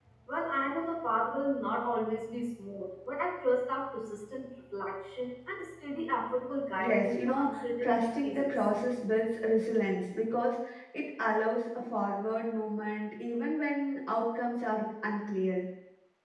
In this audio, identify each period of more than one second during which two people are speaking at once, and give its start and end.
6.8-8.7

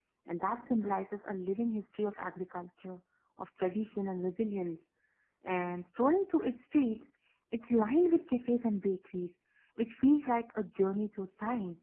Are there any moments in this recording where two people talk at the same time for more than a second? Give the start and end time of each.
none

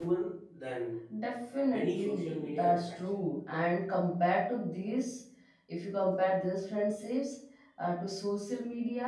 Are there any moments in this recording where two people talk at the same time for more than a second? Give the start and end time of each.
1.7-3.2

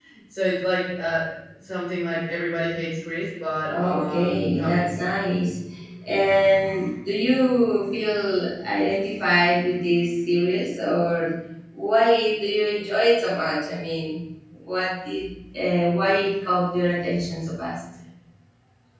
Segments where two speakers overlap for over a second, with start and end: 3.7-5.0

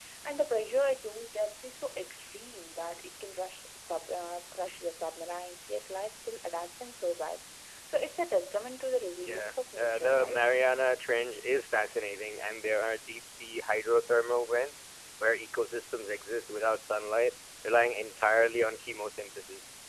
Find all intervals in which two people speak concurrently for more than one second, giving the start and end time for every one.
9.2-10.4

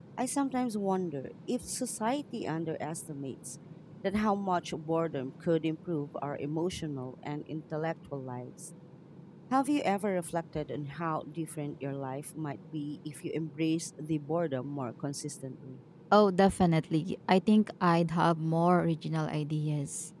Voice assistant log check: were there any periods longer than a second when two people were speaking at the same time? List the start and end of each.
none

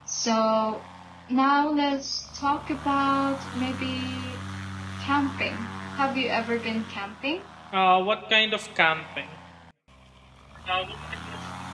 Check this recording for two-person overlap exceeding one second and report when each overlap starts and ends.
none

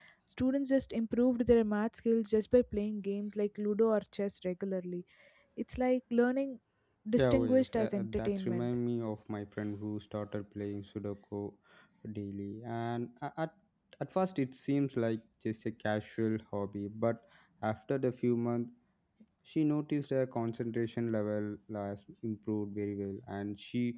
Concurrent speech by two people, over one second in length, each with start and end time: 7.2-8.7

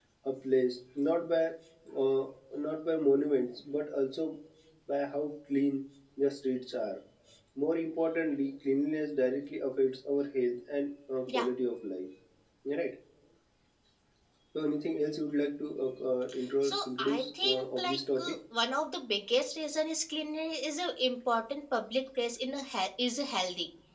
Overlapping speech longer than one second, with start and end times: 16.6-18.4

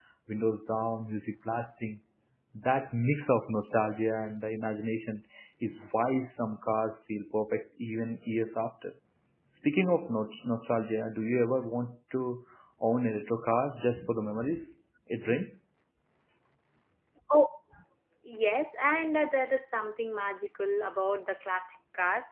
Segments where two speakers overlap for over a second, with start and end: none

